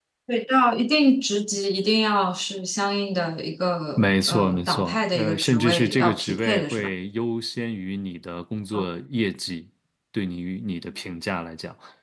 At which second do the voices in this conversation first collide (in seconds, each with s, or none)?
4.0 s